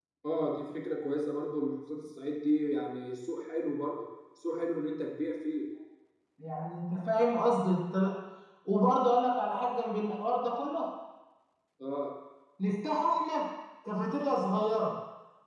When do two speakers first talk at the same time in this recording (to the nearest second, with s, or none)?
none